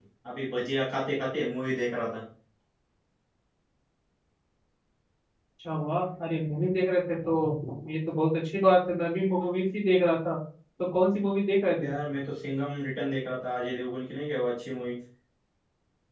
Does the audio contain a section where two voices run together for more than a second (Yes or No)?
No